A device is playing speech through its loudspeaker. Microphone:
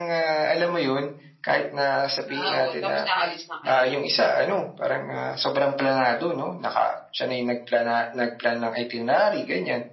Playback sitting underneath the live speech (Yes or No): No